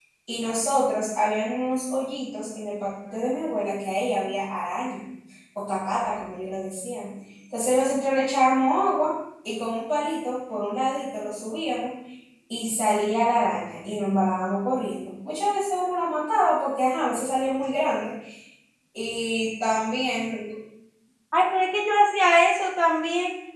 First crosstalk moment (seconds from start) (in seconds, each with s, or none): none